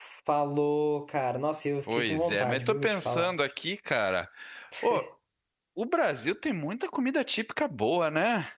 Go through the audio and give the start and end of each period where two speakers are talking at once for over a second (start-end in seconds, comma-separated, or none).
1.9-3.3